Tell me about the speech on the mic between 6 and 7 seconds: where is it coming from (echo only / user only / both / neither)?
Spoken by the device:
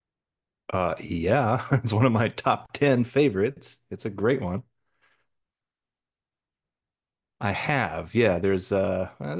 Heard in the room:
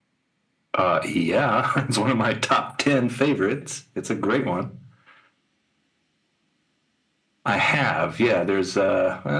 neither